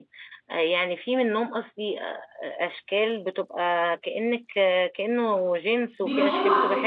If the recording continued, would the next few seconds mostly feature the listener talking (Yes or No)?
Yes